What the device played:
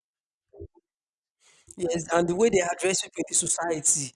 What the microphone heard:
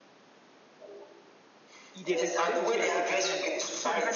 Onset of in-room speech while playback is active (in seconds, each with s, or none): 1.9 s